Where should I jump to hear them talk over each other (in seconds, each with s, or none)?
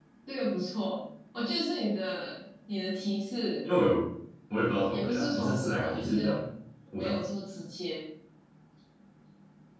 4.9 s